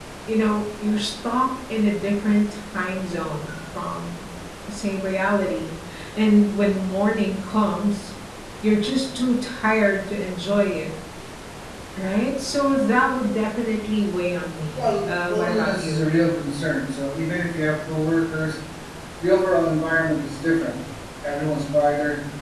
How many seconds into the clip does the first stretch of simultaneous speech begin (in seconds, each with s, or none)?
14.8 s